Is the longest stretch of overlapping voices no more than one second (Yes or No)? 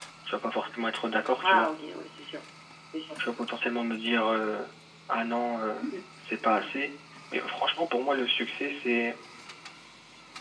Yes